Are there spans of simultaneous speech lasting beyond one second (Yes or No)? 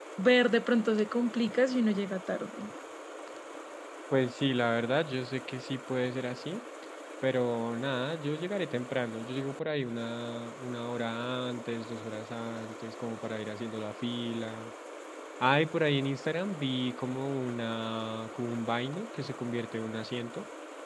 No